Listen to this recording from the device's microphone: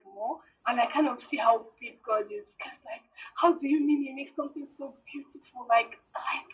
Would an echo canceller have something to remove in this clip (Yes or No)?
Yes